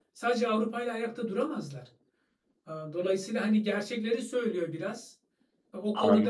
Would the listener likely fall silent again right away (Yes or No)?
Yes